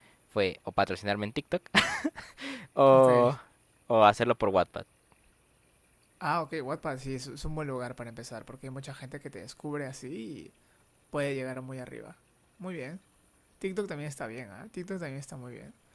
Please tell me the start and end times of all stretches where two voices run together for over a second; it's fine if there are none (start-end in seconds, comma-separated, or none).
none